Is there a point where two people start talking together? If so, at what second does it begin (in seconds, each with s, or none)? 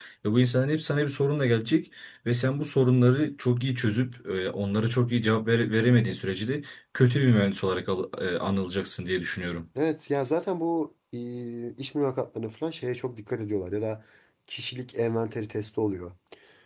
none